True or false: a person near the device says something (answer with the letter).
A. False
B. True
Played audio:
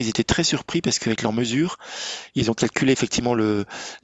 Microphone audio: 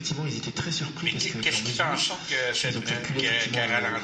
B